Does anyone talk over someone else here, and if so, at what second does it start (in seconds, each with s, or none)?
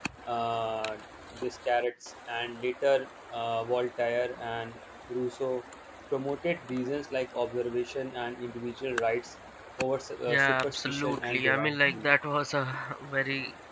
10.3 s